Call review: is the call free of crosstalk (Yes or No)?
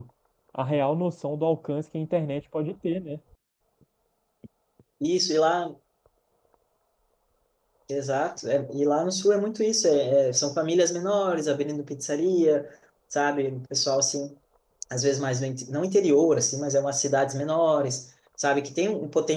Yes